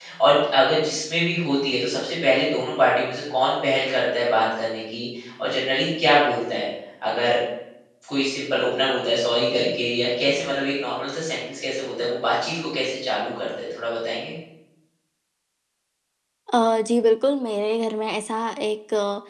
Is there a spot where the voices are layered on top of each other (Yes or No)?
No